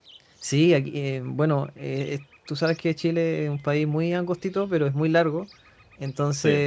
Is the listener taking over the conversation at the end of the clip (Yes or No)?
No